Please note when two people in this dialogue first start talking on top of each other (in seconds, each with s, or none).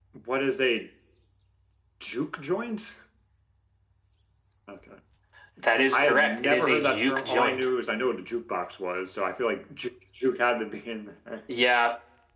5.9 s